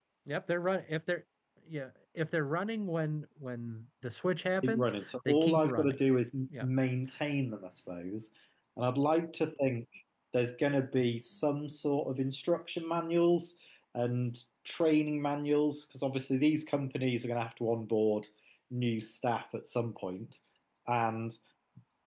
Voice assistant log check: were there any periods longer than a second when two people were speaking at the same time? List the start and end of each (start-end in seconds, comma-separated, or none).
4.6-6.0